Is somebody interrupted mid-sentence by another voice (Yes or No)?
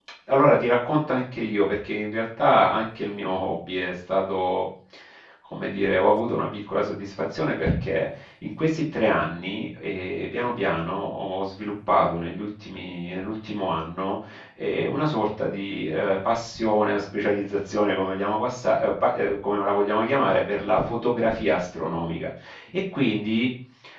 No